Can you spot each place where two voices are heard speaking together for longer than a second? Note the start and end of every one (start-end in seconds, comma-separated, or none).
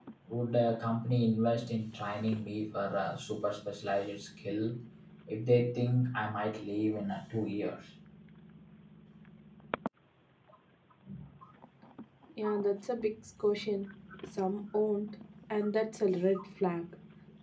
none